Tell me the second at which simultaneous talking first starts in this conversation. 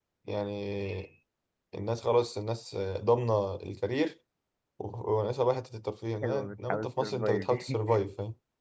6.2 s

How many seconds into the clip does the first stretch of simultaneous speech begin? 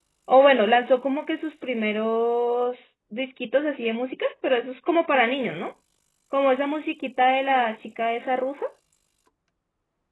none

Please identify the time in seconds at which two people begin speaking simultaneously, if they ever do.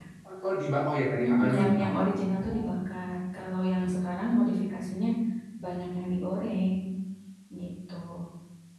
1.2 s

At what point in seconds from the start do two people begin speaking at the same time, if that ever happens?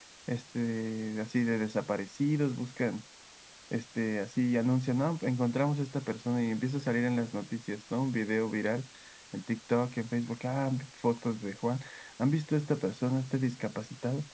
none

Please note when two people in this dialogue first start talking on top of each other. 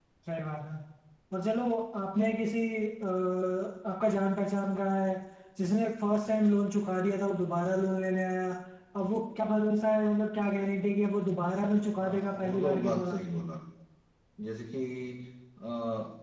12.0 s

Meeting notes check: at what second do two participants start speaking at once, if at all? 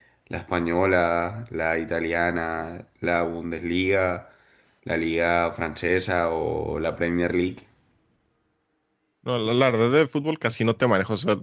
none

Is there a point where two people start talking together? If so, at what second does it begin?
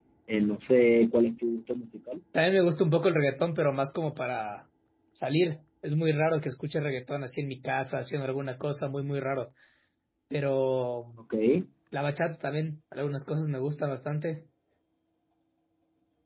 none

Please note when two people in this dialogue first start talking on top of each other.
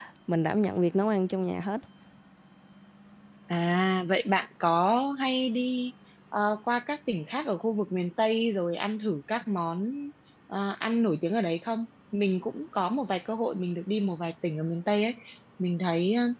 none

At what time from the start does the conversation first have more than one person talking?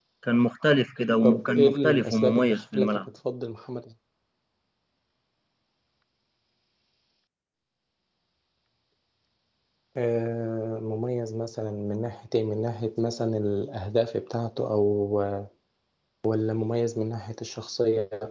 1.2 s

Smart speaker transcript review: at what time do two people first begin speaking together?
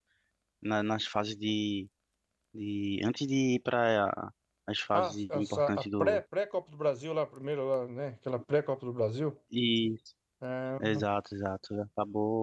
4.9 s

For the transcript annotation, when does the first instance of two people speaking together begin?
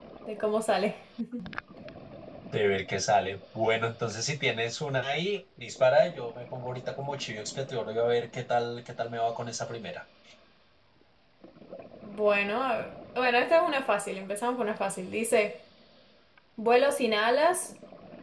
none

